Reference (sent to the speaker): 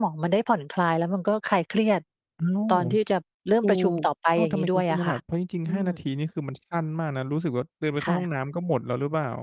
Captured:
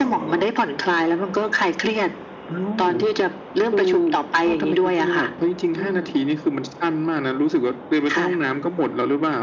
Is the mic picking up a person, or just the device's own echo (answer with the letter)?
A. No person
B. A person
A